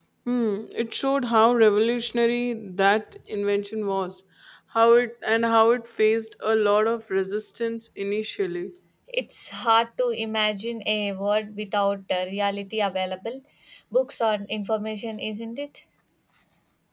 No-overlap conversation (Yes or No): Yes